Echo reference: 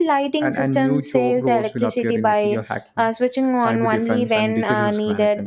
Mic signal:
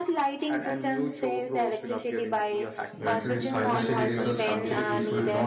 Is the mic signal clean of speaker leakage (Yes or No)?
No